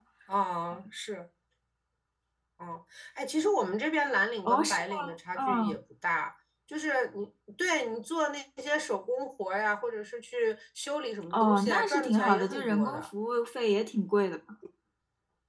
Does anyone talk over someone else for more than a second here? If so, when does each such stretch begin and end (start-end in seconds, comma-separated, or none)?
4.5-5.8, 11.3-13.1